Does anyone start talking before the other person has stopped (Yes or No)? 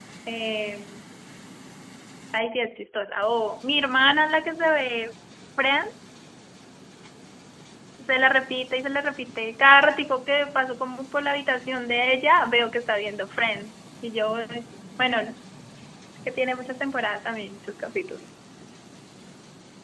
No